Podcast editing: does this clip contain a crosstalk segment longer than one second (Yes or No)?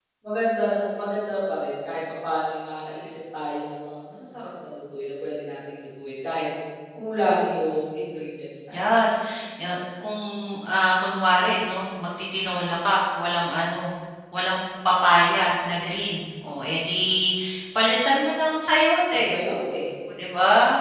No